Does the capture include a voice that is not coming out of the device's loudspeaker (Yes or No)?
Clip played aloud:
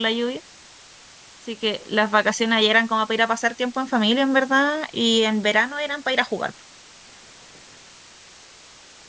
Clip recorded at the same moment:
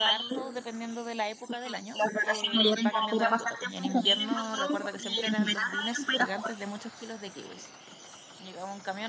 Yes